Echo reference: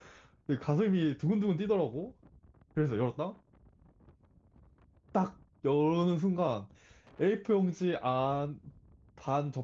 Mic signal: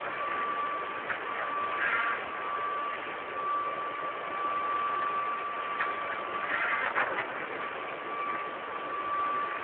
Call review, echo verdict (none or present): none